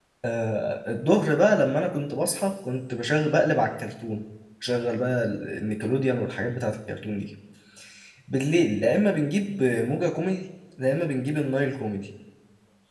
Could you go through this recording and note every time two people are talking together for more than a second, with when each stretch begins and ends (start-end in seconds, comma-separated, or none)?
none